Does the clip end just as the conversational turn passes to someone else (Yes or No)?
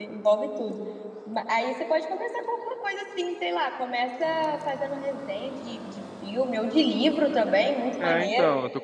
Yes